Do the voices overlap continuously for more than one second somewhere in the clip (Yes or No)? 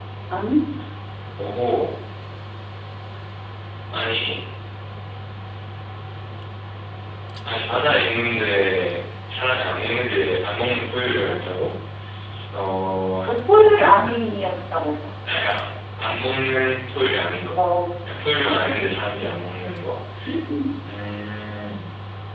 No